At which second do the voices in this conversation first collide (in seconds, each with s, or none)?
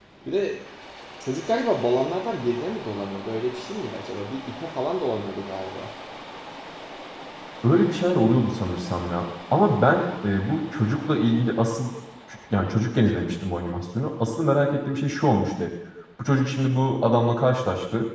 none